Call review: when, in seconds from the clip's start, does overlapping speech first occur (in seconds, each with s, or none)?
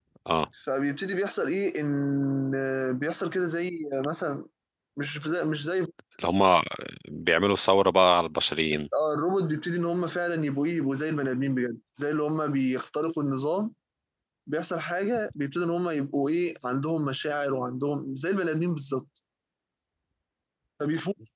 none